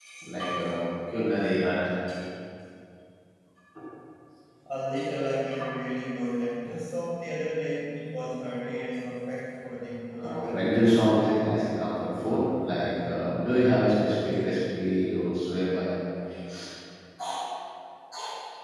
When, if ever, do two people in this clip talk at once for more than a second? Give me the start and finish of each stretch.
none

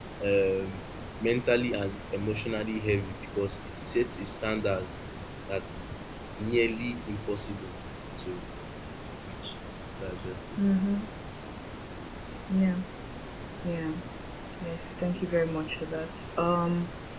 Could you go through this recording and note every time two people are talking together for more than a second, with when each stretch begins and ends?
none

